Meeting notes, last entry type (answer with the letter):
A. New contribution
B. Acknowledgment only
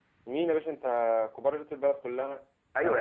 A